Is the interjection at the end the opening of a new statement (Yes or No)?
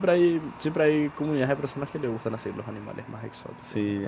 Yes